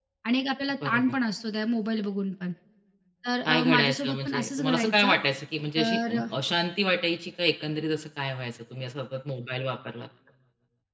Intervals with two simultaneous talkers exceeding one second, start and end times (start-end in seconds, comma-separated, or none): 3.4-5.2